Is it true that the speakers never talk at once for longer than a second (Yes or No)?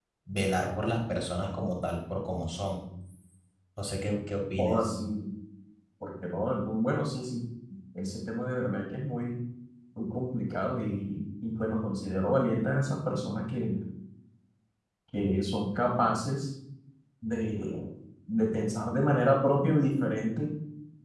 Yes